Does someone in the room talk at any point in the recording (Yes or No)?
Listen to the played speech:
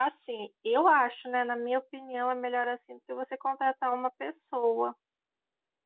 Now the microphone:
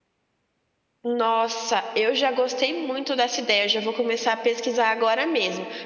Yes